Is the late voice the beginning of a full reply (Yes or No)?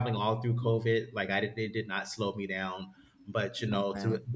No